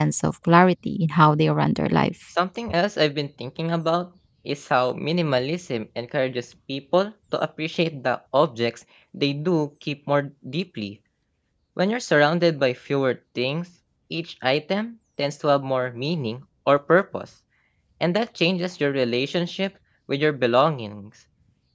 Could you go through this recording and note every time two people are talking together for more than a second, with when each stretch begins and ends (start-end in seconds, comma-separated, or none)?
none